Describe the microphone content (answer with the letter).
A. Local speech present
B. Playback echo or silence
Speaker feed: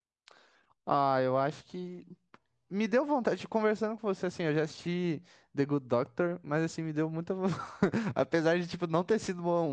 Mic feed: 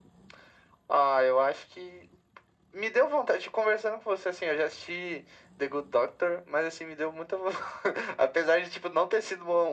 B